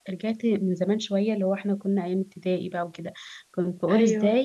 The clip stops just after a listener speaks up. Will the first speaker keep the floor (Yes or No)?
Yes